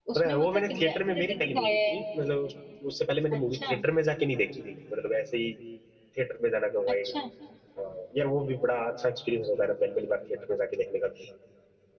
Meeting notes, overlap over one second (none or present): present